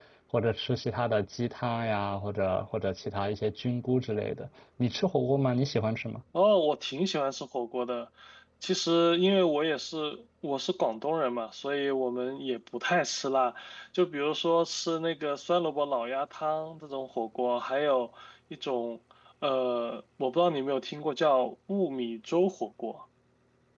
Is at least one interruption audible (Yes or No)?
No